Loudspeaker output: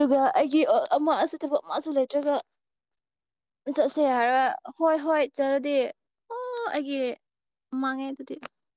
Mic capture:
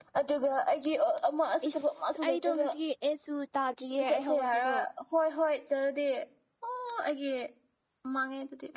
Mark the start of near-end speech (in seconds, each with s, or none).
1.7 s